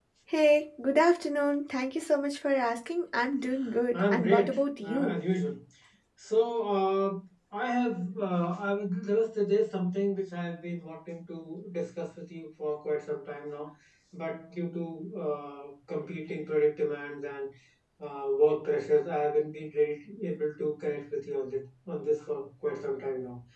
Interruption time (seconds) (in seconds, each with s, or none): 3.9 s